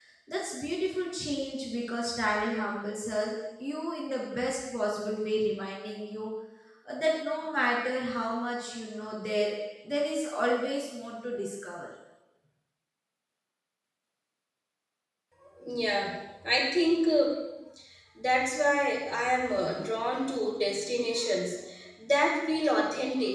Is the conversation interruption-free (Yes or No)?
Yes